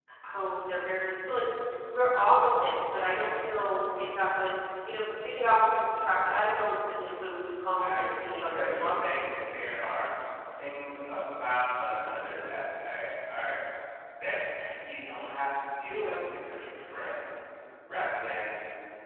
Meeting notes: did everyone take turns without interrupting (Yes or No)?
No